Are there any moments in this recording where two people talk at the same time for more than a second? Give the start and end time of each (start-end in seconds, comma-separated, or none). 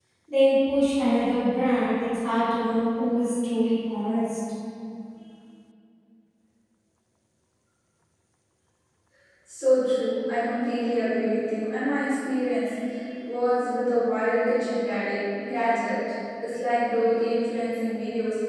none